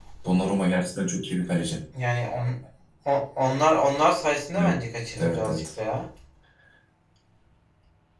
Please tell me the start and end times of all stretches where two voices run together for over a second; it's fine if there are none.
none

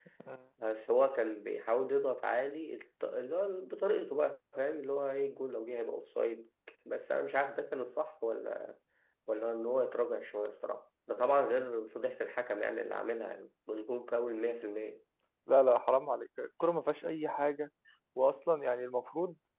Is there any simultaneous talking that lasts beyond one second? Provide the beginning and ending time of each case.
none

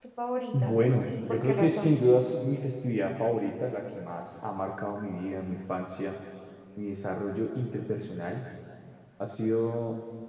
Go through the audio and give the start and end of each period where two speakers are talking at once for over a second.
0.5-1.9

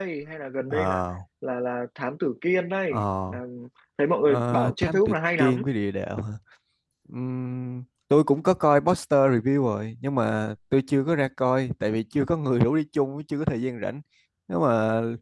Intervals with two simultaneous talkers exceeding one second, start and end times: 4.3-5.6

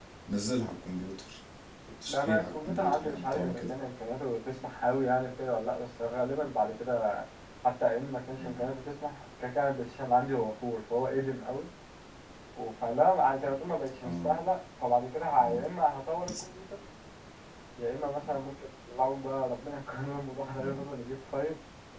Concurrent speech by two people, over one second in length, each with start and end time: 2.1-3.6

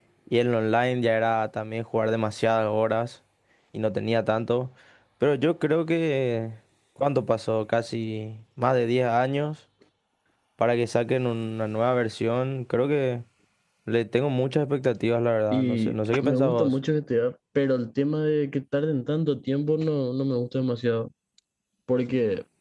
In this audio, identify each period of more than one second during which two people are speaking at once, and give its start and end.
15.5-16.7

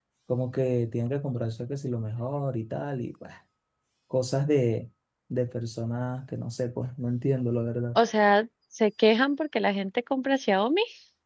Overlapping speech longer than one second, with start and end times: none

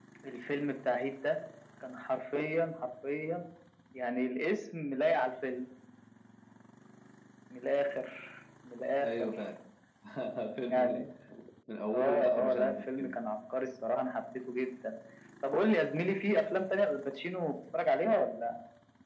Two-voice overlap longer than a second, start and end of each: 11.9-13.2

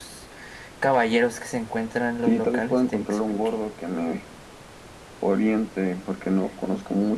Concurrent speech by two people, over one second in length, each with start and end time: 2.3-3.5

